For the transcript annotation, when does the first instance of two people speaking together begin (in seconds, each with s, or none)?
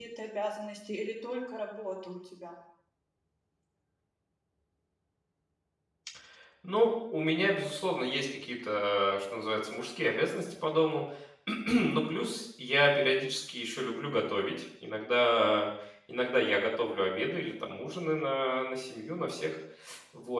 none